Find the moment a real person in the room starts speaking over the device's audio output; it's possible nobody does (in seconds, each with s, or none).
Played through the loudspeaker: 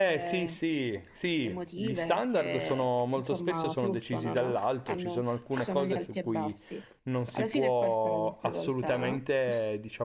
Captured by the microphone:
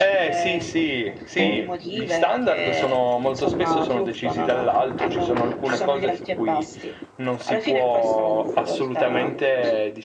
1.3 s